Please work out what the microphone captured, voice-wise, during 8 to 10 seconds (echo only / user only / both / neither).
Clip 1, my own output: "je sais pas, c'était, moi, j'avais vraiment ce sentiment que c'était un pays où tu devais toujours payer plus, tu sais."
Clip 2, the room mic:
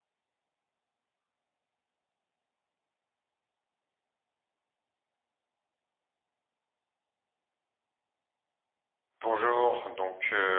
user only